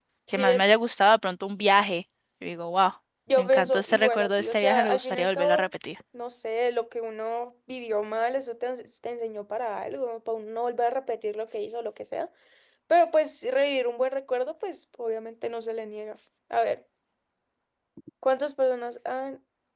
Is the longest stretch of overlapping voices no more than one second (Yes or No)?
No